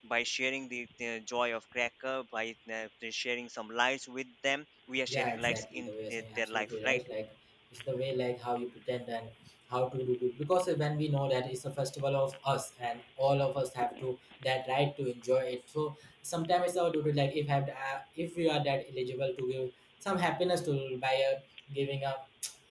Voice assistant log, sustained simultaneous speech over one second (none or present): present